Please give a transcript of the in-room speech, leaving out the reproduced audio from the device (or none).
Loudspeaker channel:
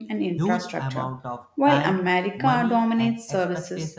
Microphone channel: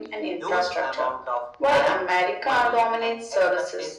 none